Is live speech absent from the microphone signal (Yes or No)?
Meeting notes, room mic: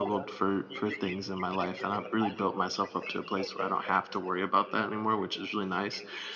No